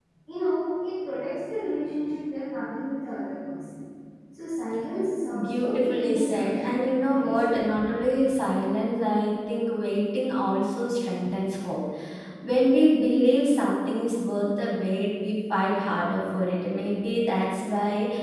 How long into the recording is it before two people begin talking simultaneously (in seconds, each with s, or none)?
5.3 s